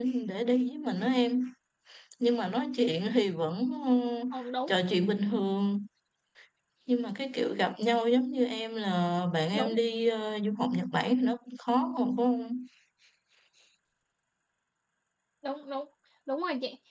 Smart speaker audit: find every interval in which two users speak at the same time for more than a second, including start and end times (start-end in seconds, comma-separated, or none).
none